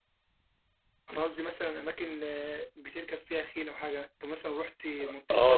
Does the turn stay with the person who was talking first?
No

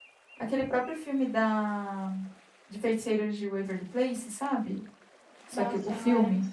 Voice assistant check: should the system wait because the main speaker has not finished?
No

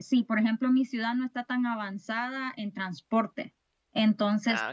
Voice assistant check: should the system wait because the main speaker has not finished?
Yes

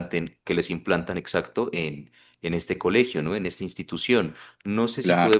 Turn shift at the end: No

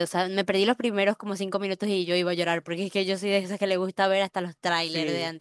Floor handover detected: Yes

